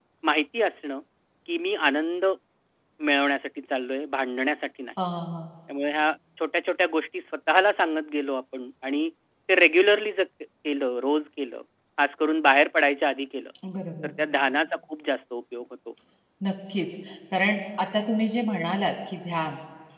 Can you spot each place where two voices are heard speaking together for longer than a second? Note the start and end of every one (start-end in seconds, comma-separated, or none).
none